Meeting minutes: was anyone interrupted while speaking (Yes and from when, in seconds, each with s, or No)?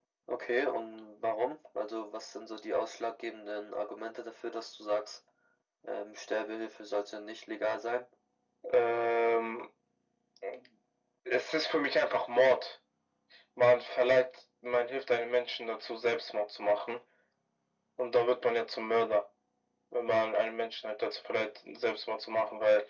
No